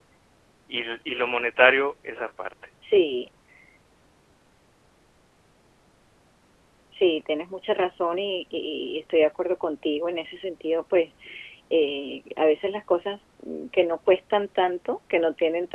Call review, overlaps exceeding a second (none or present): none